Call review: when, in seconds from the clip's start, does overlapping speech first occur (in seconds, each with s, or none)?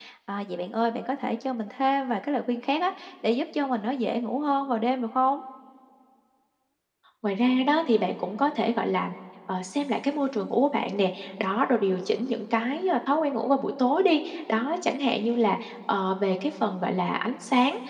none